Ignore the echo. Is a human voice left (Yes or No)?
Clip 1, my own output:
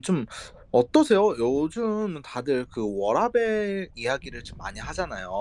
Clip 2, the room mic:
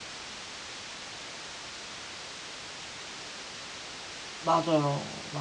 Yes